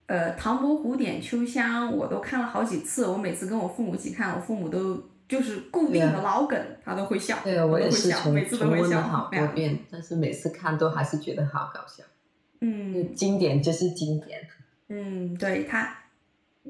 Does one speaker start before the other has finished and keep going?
Yes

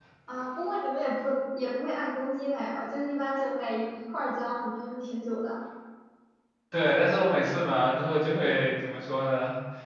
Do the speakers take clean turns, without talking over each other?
Yes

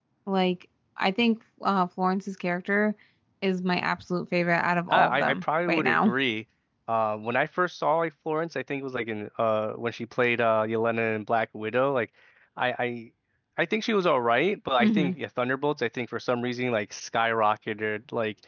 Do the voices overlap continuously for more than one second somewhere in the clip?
Yes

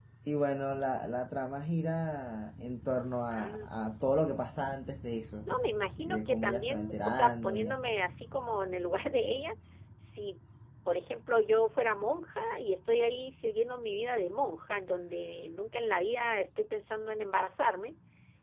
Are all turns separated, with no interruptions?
No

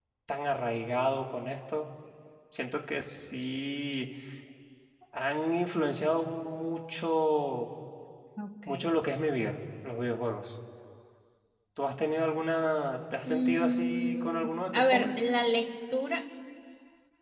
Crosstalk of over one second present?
Yes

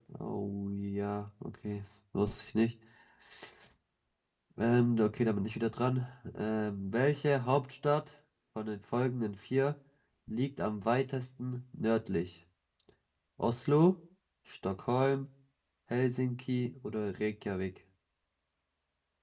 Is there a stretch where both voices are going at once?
No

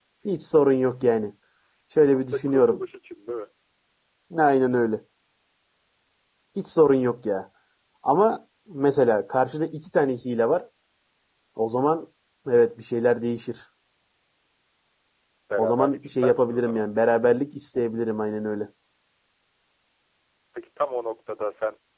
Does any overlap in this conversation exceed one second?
Yes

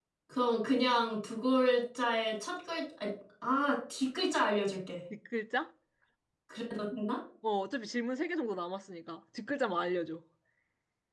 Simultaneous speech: No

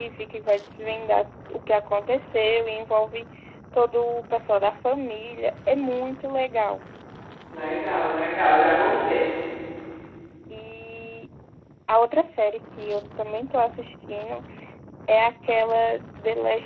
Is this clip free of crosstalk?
Yes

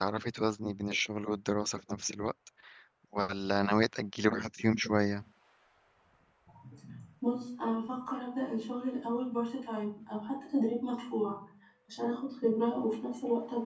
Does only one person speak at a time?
Yes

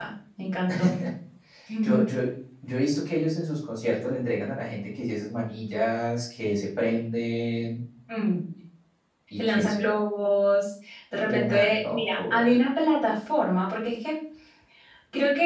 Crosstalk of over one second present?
Yes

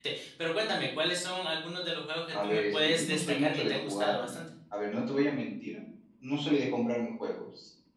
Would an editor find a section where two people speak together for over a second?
Yes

